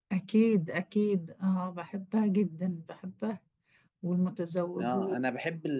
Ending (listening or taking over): taking over